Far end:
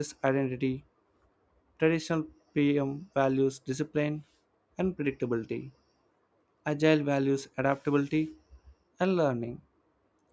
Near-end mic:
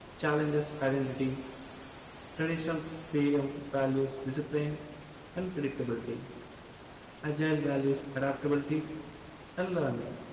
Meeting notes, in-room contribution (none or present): none